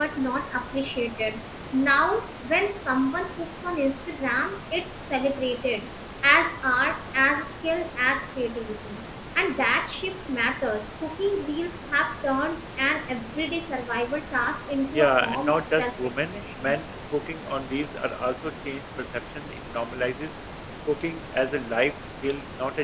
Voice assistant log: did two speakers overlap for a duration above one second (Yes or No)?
Yes